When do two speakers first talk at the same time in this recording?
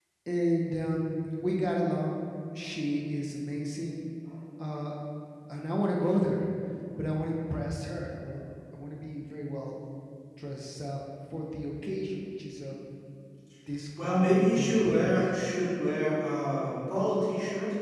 14.0 s

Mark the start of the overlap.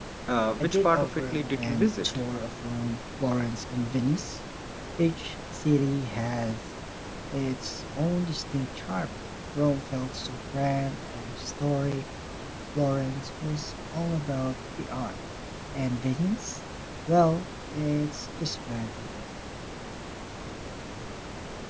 0.6 s

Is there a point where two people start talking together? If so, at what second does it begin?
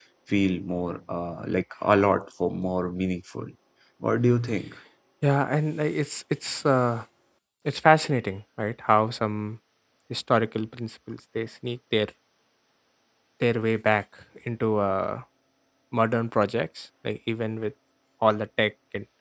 none

